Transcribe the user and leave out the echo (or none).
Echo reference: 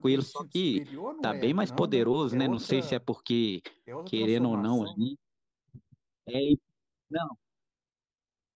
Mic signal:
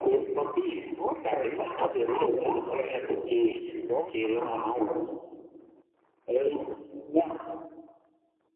none